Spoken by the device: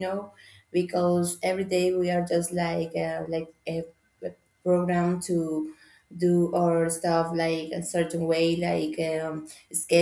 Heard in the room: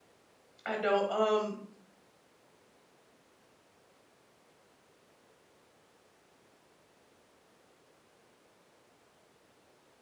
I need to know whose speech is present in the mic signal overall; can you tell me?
user only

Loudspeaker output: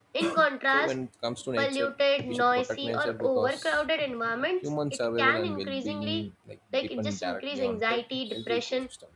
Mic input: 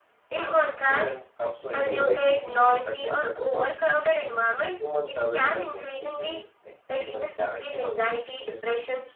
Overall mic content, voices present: both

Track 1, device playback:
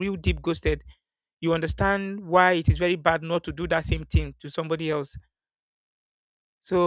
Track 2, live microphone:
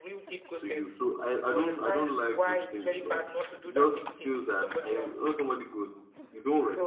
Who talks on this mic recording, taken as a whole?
both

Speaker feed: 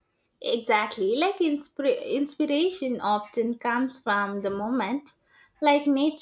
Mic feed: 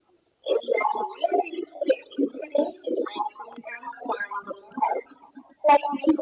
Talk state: echo only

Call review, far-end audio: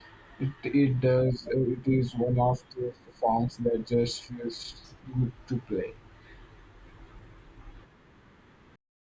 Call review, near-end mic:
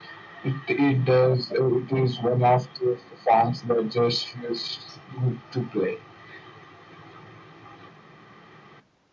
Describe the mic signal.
echo only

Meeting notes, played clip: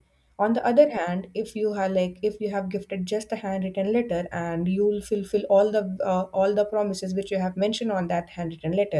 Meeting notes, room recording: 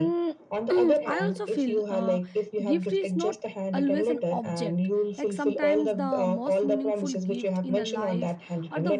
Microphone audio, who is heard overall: both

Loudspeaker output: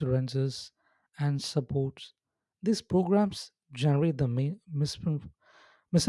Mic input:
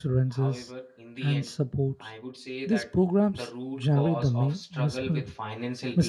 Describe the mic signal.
both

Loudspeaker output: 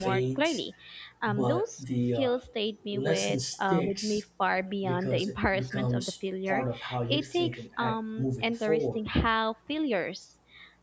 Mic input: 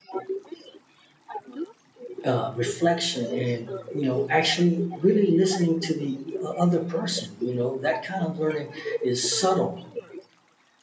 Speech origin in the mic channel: both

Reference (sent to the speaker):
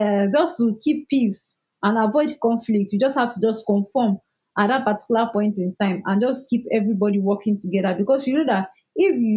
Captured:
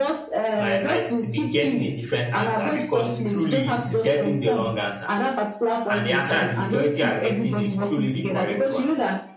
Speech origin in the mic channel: both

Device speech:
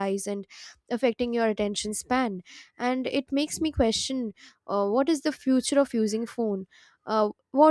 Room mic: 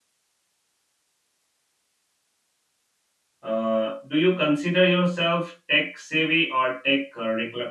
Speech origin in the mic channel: user only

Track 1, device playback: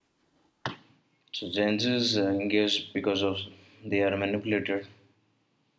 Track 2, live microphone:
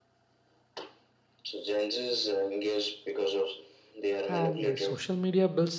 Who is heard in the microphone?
both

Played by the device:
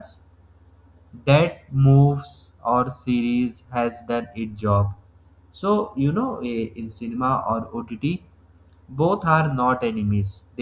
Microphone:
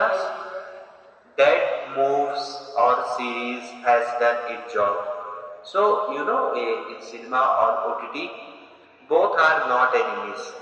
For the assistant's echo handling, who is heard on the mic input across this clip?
echo only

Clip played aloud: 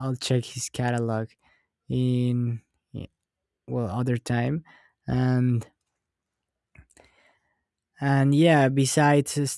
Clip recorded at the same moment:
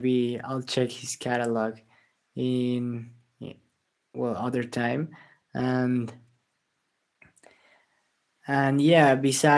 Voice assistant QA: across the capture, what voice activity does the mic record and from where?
echo only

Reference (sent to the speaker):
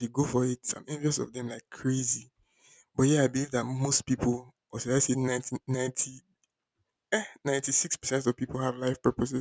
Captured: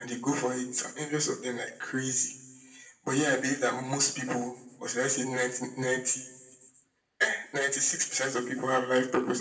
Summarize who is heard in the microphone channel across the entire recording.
echo only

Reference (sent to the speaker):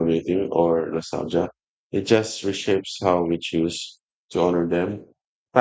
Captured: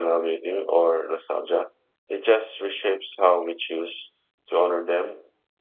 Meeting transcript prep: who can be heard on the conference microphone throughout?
echo only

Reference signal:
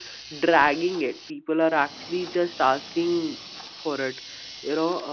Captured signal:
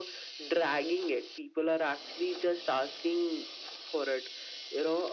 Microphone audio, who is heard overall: echo only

